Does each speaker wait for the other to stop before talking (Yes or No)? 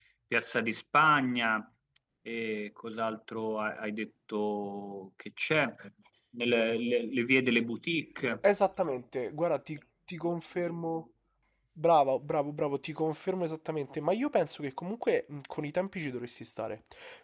Yes